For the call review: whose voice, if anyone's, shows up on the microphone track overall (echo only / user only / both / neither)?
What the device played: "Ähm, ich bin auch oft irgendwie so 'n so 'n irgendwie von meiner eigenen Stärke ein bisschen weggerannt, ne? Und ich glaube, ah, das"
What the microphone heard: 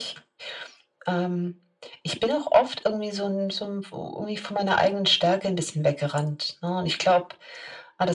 echo only